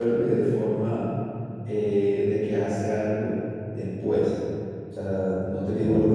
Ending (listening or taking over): listening